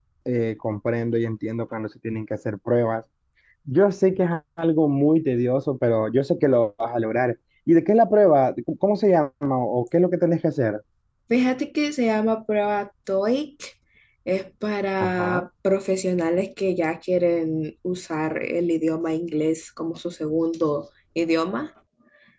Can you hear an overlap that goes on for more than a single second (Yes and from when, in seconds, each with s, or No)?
No